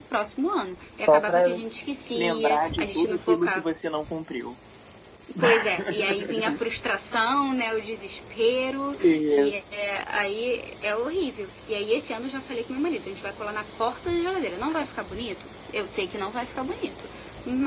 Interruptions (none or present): present